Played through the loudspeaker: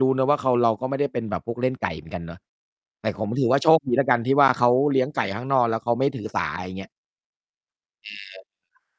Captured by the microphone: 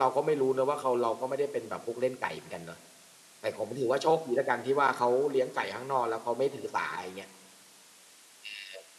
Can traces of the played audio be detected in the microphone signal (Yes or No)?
Yes